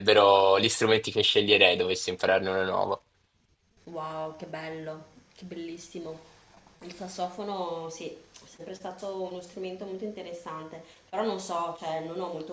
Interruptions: none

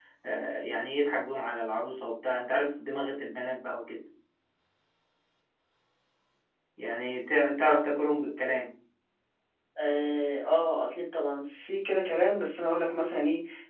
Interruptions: none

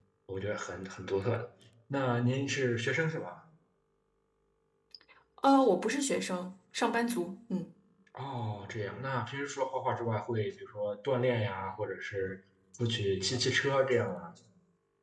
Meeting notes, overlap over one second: none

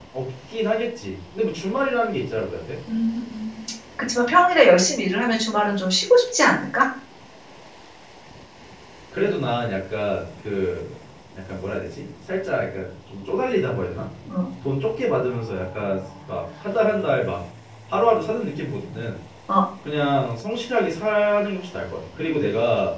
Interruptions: none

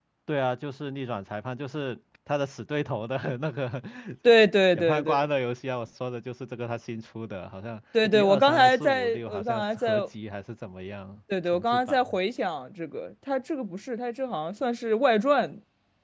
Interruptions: present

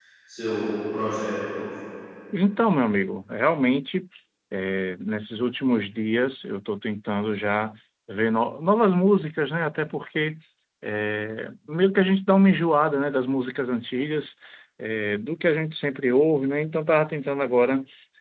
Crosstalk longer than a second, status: none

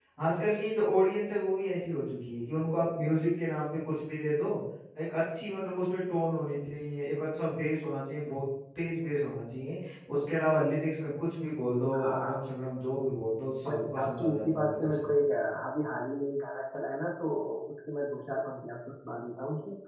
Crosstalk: present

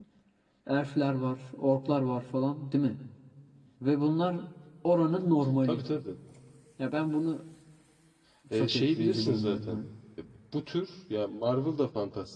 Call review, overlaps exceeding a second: present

